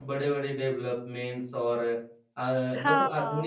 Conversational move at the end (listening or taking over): listening